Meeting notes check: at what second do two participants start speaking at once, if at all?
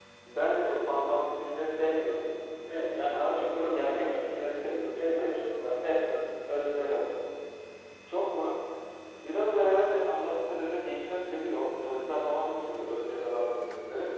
2.7 s

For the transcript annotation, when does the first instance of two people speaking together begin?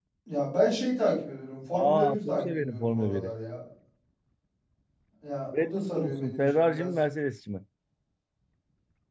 1.7 s

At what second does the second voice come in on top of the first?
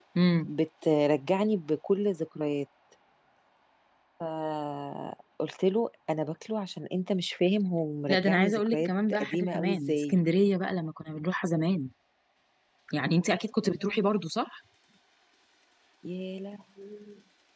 8.1 s

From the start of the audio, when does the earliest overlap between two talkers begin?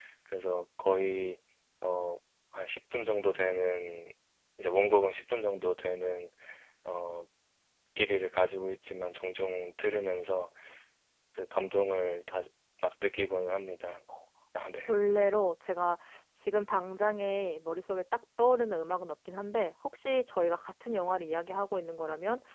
none

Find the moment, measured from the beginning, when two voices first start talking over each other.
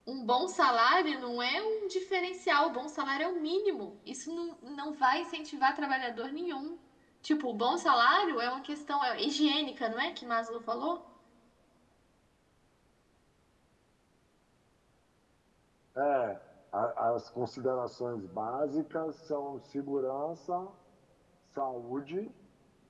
none

